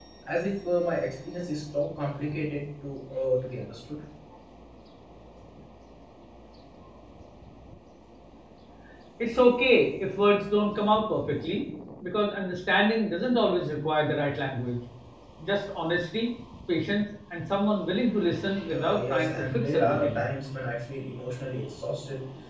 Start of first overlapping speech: 18.7 s

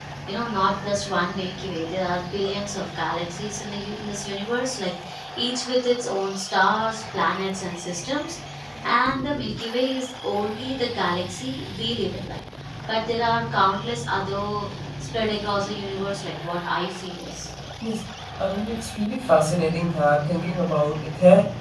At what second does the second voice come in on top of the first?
none

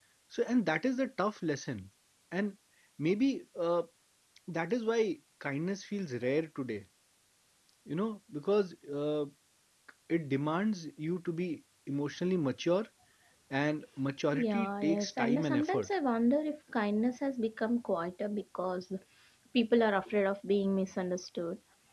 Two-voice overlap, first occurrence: 14.3 s

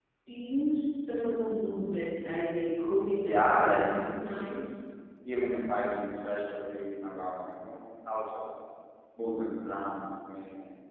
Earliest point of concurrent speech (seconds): 3.2 s

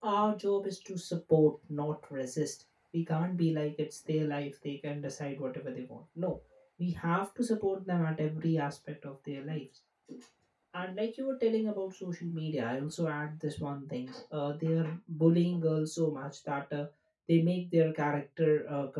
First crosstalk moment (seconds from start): none

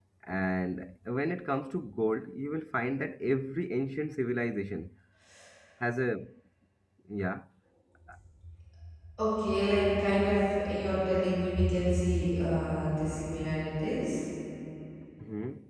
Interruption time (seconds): none

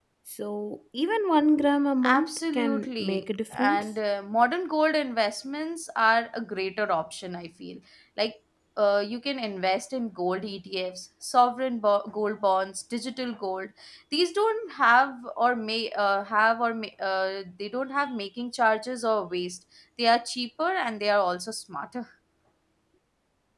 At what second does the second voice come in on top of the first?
2.0 s

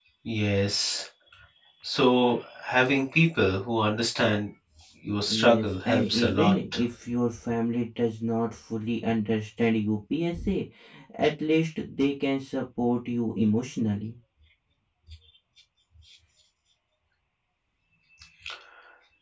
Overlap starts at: 5.2 s

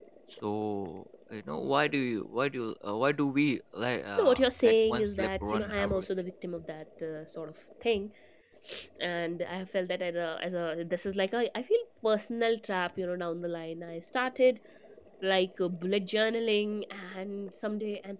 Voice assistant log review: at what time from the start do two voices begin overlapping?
4.2 s

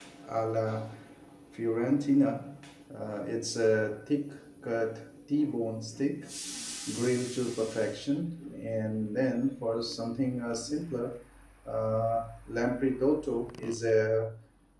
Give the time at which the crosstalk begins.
none

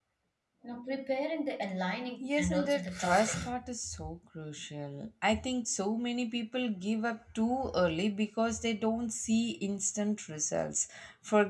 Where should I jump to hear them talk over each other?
2.2 s

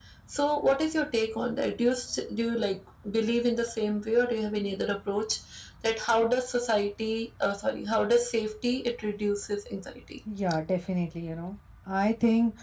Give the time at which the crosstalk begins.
none

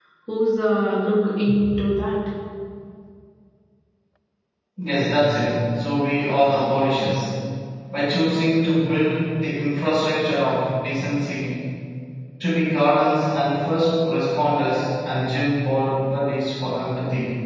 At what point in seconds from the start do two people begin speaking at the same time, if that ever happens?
none

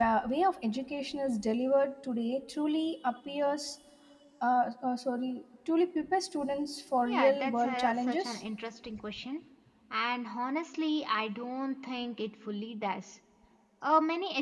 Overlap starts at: 7.0 s

